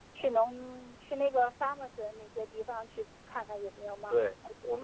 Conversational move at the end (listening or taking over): taking over